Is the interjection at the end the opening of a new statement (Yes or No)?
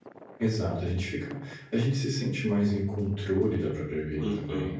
Yes